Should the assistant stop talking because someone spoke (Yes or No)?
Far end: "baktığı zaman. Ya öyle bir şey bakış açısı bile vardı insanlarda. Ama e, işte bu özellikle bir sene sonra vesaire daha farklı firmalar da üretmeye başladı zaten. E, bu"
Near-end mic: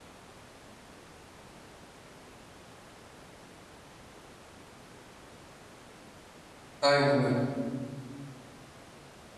Yes